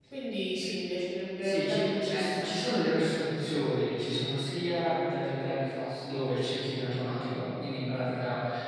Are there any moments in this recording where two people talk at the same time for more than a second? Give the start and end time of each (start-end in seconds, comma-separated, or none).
1.4-2.8